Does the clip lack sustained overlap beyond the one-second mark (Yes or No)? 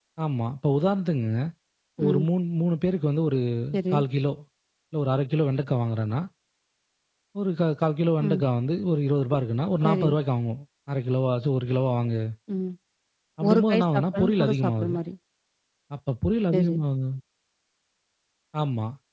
No